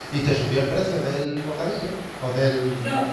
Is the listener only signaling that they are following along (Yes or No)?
No